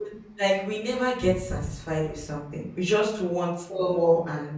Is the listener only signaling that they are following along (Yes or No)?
Yes